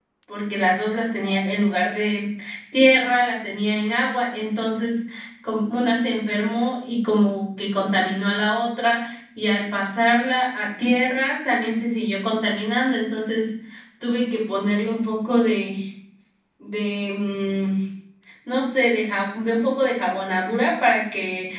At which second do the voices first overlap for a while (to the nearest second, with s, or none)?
none